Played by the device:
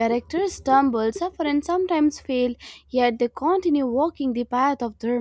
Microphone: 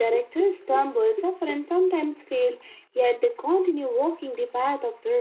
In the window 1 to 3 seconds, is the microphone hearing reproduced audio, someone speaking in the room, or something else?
echo only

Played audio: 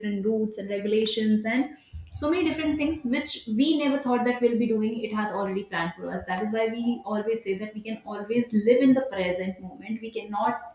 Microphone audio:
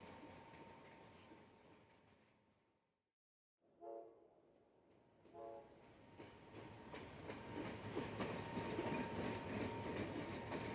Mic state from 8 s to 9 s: neither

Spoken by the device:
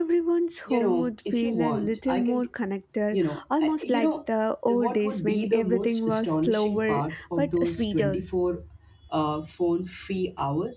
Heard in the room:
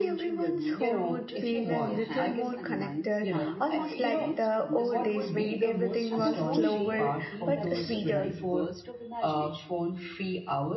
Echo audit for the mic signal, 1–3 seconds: both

